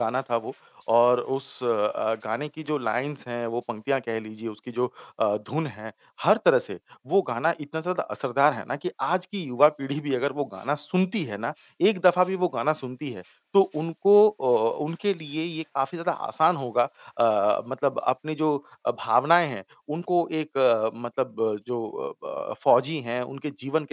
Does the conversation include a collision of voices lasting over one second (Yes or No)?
No